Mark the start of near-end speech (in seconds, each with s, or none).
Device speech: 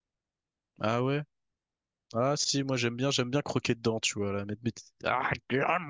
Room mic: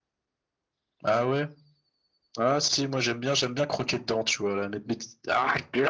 none